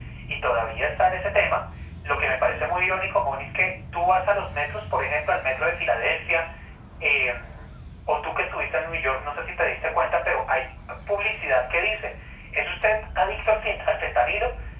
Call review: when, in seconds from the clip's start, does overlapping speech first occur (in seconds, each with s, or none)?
none